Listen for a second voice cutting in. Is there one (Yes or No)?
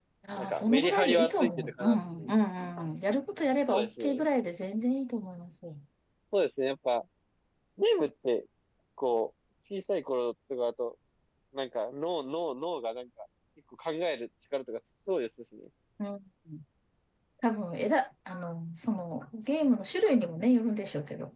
Yes